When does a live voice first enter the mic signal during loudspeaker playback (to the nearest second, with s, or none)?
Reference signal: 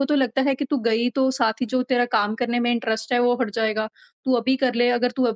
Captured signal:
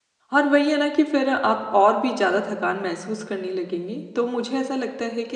0 s